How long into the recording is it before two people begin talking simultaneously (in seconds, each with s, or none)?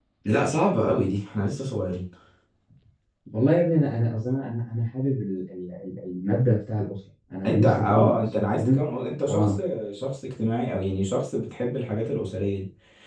7.4 s